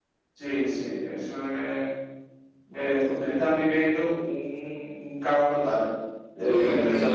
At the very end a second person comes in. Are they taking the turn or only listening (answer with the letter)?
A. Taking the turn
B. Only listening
A